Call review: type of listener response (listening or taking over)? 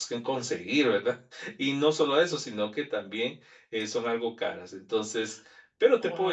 taking over